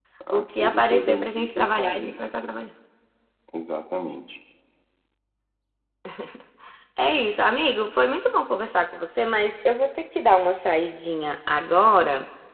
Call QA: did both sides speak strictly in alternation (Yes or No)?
No